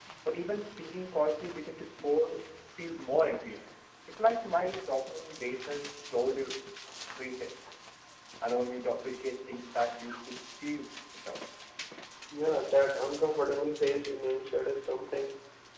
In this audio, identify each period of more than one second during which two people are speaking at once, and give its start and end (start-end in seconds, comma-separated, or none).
none